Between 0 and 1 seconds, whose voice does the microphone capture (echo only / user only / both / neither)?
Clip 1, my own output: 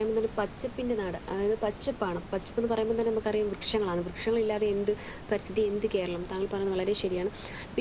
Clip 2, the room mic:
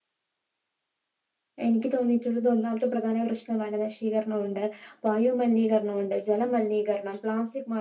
neither